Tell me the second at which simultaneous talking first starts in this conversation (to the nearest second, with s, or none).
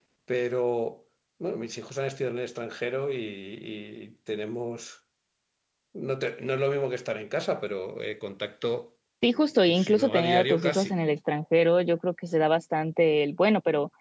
10 s